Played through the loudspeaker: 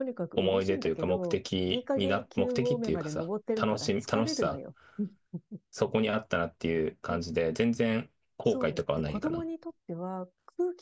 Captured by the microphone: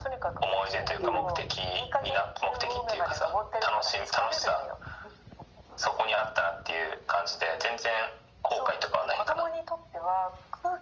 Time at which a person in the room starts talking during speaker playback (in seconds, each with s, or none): 1.0 s